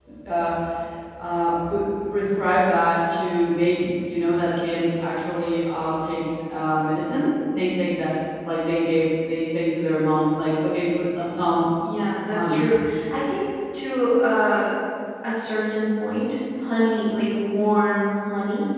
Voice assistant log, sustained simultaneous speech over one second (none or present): none